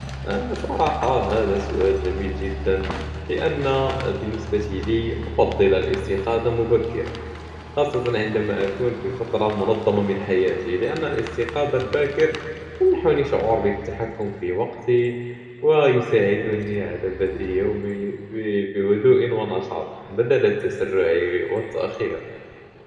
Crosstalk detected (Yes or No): No